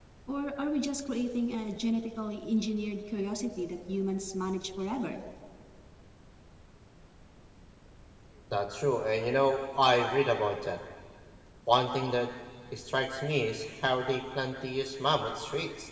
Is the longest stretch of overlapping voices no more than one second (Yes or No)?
Yes